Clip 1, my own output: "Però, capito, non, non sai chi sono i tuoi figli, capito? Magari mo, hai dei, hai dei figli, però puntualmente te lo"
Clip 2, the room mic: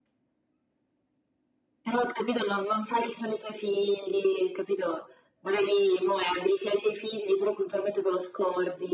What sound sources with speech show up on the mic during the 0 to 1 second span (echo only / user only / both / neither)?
neither